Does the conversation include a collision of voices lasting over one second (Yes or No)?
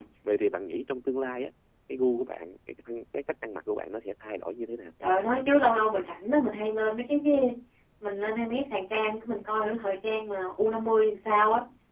No